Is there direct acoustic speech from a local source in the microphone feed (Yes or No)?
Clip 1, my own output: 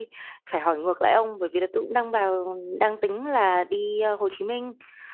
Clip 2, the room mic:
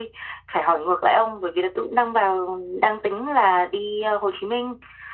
No